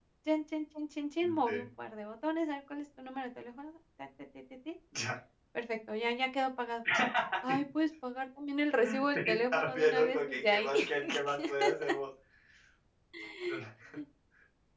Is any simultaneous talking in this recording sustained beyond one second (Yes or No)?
Yes